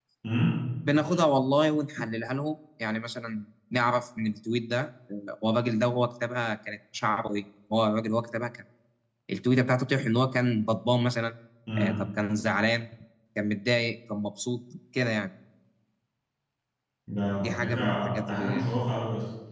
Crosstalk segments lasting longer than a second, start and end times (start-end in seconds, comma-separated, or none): 17.4-18.7